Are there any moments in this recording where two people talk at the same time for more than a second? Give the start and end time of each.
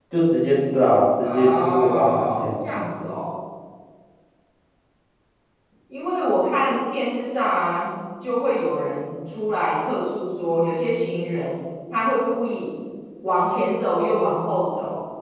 1.2-2.5

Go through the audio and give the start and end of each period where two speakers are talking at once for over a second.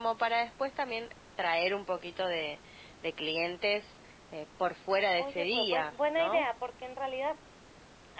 5.2-6.5

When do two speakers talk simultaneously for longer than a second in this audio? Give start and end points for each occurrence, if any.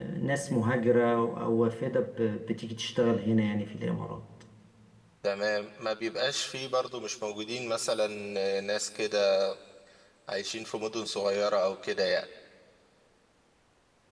none

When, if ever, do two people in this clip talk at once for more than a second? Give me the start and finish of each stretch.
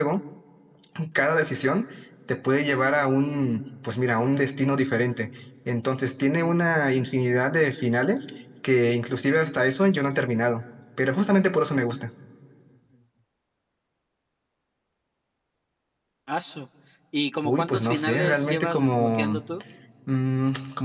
17.4-19.4

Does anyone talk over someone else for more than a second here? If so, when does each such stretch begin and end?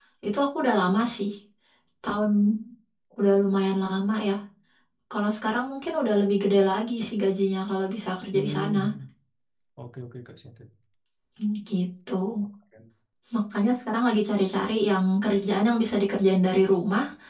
none

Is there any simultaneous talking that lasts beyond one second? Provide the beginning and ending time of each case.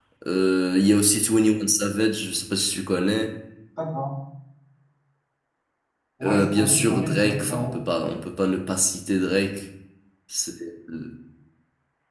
6.2-7.8

